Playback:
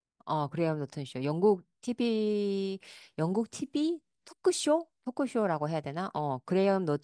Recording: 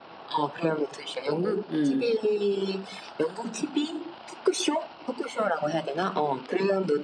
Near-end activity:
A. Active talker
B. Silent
A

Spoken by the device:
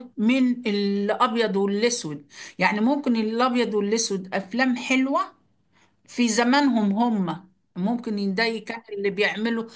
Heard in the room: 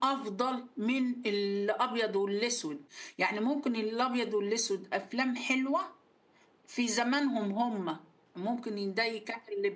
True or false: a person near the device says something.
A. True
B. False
B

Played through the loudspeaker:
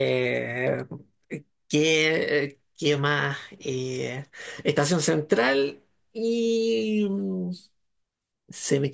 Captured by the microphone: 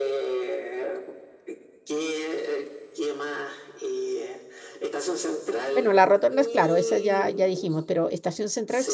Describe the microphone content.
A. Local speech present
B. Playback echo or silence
A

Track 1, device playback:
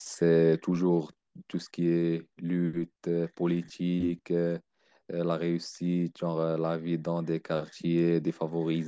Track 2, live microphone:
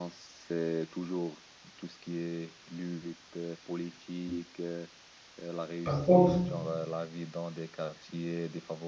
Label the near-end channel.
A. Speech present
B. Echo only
A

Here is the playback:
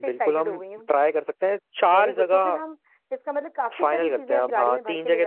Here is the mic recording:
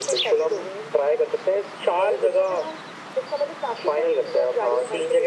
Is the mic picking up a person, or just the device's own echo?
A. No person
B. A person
A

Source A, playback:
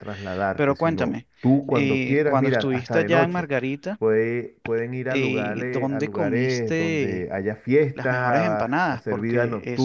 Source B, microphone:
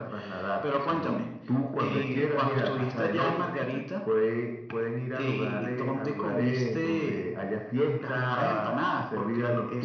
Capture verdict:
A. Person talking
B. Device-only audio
A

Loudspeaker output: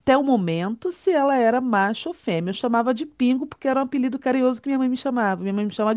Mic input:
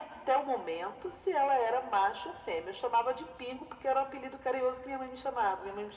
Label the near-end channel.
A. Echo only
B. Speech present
A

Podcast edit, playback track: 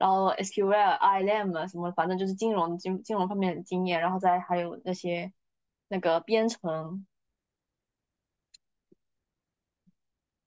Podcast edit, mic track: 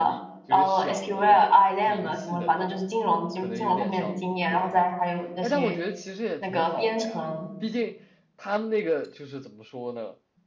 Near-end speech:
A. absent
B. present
B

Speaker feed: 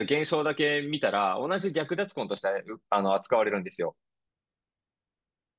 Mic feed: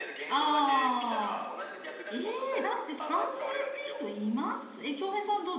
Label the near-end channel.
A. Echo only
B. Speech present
B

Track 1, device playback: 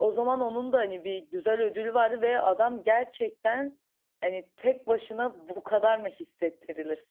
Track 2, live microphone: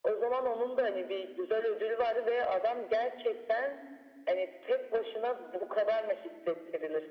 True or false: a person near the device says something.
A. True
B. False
B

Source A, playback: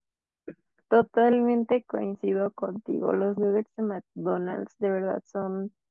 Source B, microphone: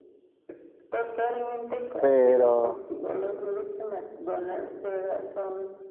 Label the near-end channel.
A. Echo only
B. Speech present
B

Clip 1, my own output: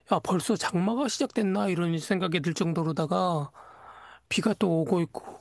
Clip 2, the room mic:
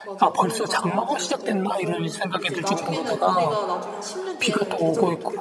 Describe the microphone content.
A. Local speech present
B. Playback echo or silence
A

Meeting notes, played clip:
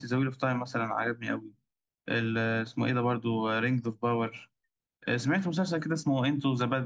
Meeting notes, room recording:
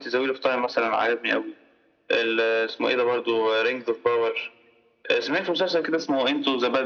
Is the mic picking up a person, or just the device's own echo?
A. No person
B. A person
A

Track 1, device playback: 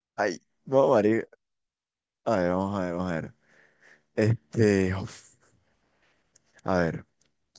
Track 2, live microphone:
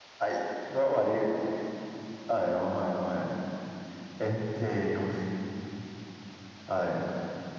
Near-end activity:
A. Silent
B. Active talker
A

